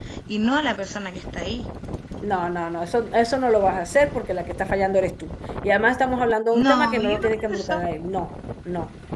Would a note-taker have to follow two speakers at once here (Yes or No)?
Yes